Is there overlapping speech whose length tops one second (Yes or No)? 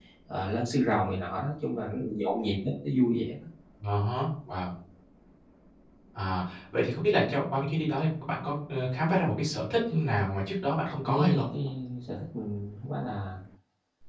No